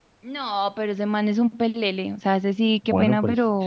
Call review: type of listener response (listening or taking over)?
taking over